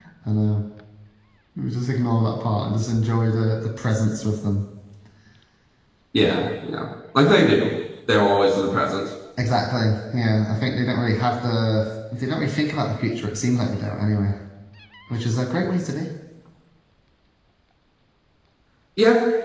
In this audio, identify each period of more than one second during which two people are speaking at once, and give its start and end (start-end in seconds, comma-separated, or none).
none